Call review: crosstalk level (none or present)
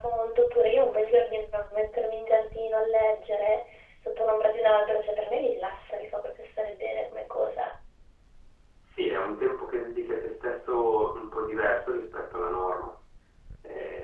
none